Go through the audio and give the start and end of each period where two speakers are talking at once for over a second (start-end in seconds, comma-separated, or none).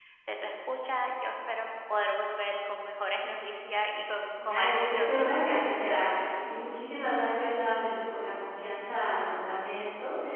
4.5-5.8